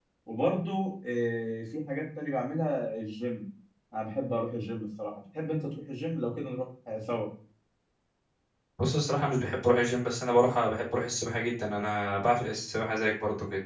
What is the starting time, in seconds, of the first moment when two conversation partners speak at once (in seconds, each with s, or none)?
none